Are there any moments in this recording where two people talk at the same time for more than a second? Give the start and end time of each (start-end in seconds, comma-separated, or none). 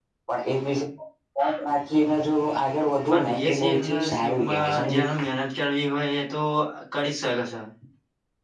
3.1-5.2